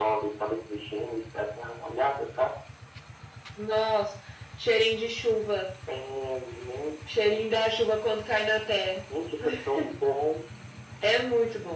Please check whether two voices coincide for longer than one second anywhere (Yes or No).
No